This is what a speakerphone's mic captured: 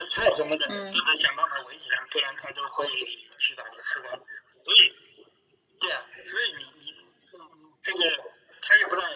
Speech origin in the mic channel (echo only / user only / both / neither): both